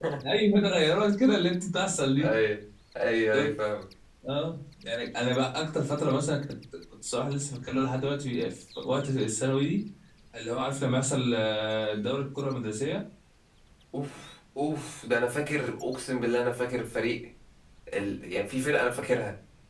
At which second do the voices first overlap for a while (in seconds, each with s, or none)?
none